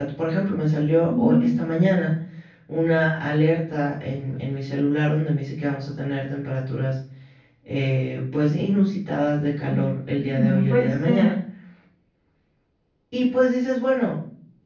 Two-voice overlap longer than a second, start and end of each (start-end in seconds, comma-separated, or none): 10.2-11.4